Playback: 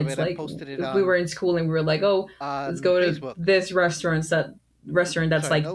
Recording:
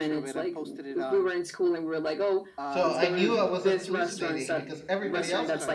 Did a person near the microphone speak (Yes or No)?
Yes